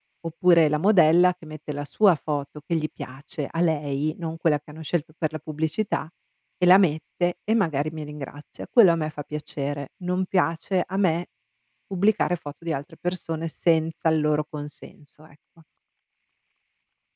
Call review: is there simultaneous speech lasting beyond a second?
No

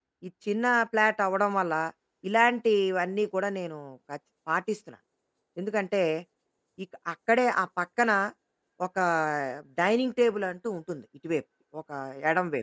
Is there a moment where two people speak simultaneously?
No

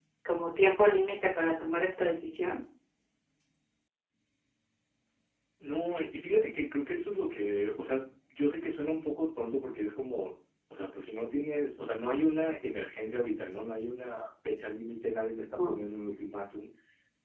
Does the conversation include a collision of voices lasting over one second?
No

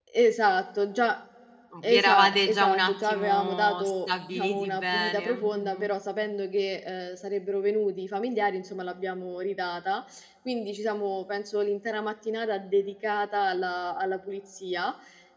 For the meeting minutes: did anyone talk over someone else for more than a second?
Yes, from 1.8 s

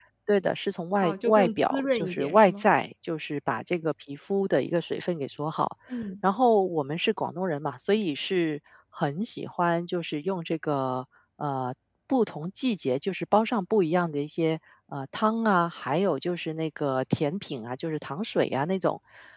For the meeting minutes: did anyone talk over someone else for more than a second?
Yes, from 1.0 s

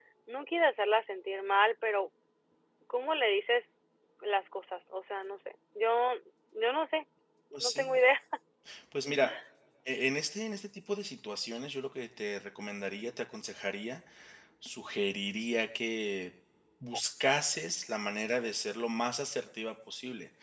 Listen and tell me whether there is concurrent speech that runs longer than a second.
No

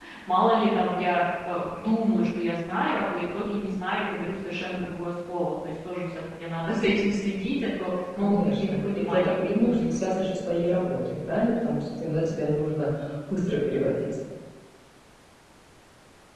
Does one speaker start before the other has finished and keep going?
Yes, from 8.2 s

